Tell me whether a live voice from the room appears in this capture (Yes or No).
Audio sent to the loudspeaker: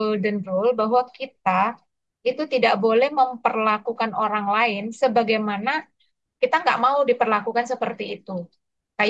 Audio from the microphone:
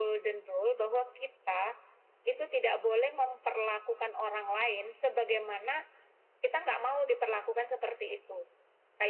No